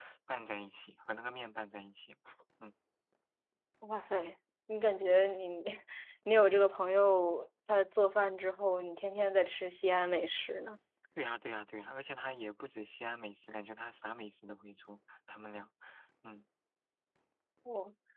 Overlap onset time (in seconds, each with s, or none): none